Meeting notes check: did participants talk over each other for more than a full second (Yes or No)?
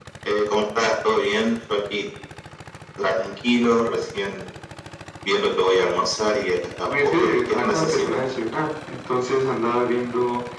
Yes